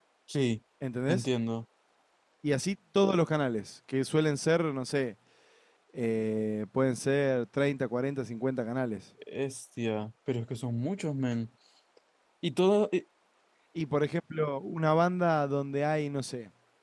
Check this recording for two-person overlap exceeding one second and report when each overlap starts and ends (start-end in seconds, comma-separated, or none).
none